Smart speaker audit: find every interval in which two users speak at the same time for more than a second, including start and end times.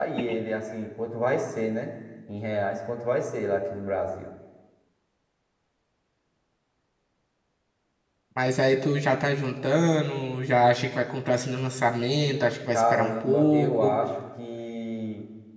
12.7-14.0

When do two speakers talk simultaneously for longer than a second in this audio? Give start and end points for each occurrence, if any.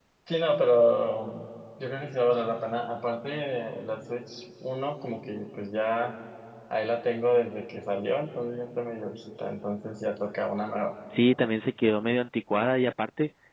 none

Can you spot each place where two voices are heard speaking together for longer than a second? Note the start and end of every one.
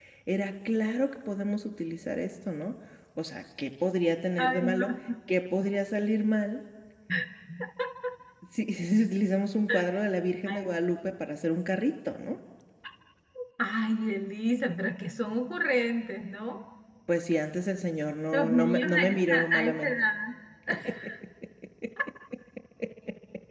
18.3-19.9

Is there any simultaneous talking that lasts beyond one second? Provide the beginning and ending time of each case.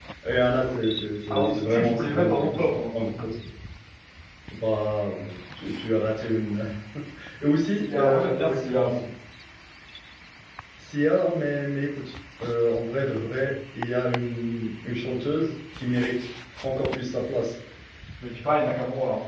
1.3-2.7, 7.7-9.0

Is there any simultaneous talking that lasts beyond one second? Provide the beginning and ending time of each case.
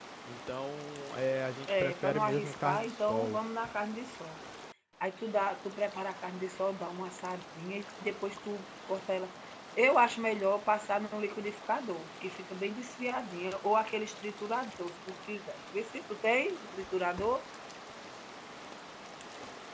1.7-3.4

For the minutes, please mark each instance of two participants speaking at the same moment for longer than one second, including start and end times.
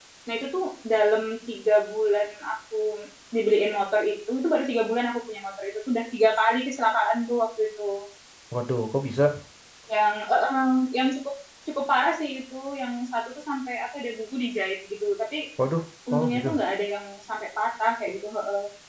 none

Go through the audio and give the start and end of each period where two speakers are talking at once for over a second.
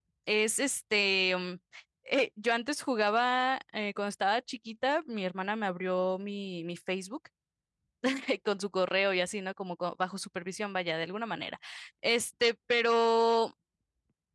none

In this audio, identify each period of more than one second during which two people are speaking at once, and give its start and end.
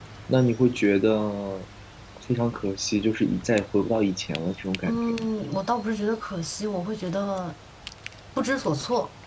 none

